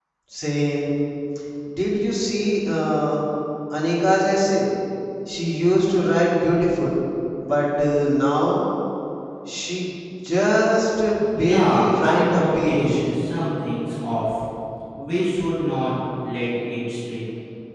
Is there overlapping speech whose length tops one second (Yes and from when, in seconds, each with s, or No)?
Yes, from 11.4 s